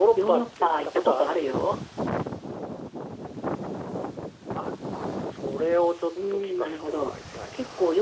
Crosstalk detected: Yes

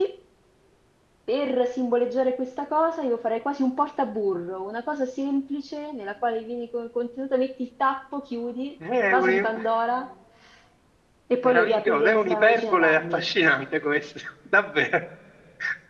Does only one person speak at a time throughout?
No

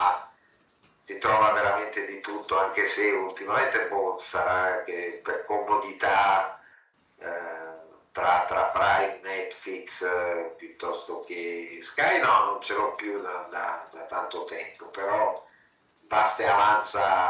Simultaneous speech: No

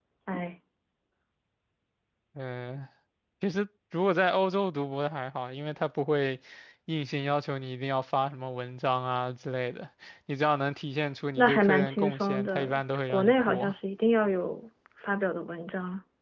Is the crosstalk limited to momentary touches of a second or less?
No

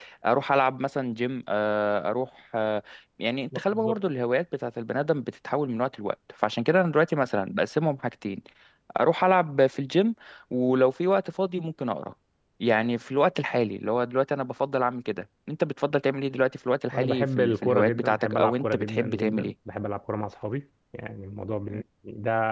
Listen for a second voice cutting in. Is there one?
Yes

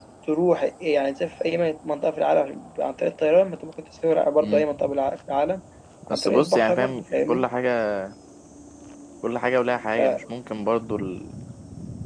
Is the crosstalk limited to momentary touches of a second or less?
No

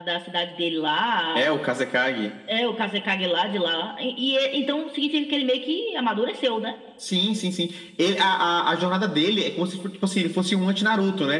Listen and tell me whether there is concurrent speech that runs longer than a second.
No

